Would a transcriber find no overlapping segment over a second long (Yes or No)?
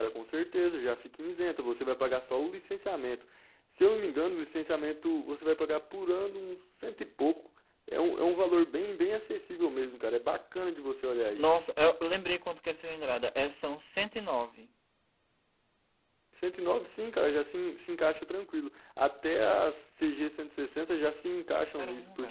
Yes